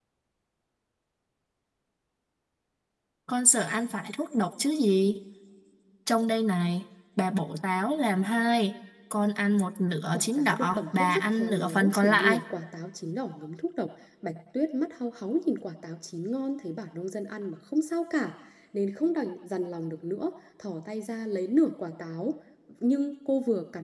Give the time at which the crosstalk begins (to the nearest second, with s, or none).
10 s